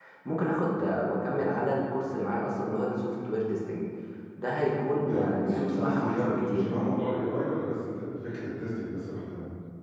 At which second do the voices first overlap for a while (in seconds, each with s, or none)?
5.0 s